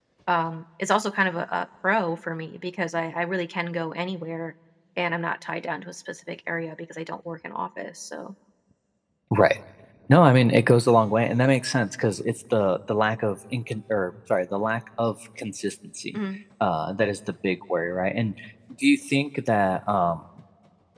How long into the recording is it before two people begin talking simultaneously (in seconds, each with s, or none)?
none